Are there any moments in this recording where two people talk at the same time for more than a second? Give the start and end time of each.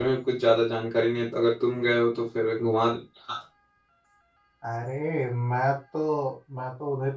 none

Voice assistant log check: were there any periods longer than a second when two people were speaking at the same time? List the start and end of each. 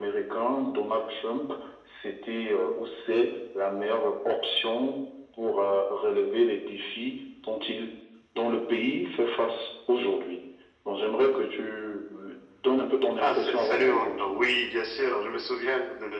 13.2-14.4

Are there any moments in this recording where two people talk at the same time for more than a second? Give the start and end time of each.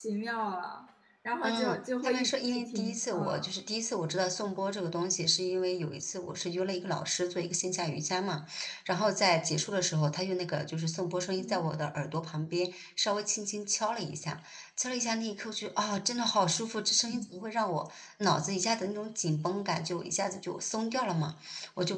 1.4-3.4

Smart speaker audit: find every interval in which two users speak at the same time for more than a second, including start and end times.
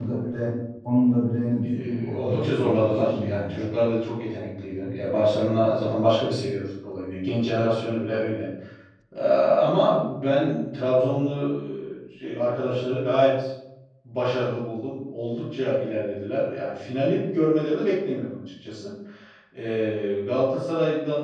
1.7-3.7

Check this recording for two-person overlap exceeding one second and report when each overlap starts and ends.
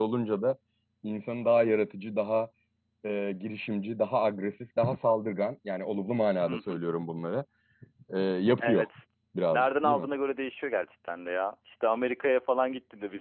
none

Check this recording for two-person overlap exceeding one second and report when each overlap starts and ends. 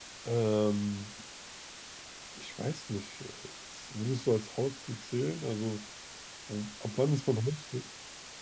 none

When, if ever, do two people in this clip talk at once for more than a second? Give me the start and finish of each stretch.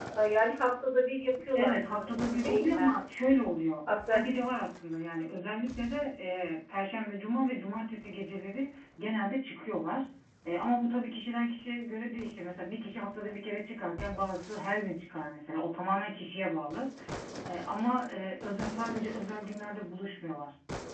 1.5-3.0

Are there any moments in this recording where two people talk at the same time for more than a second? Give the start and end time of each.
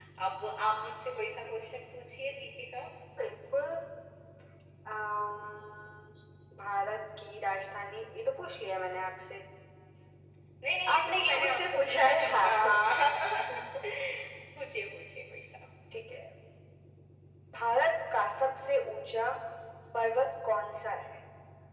10.9-12.8

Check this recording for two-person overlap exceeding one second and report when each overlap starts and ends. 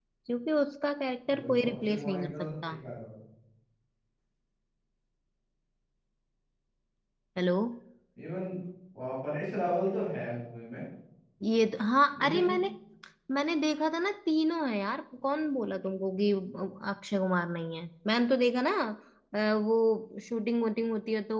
1.3-2.8

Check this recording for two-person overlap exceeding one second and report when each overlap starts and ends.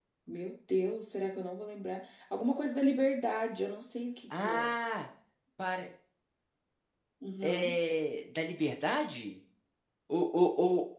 none

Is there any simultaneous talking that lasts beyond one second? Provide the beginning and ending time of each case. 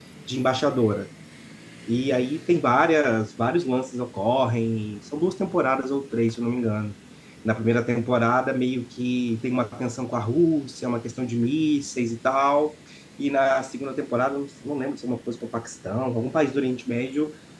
none

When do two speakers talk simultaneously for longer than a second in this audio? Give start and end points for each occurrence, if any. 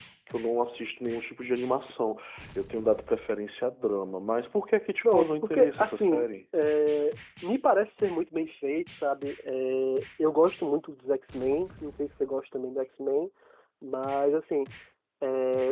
5.0-6.3

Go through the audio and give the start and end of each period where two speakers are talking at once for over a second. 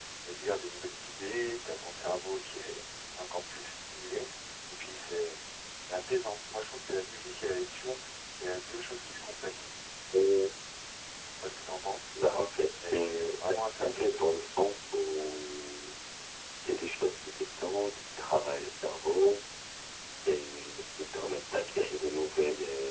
12.9-14.1

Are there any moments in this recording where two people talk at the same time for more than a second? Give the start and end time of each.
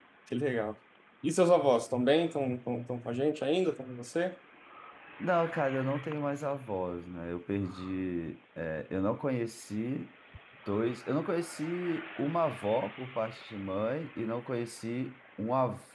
none

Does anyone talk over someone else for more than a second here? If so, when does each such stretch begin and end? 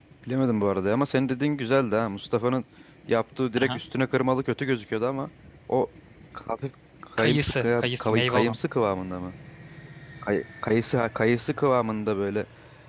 7.2-8.6

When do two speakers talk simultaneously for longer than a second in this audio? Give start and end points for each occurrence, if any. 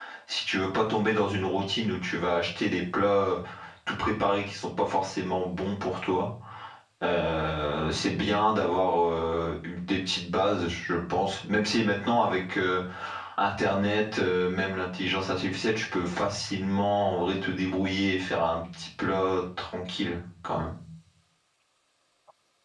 none

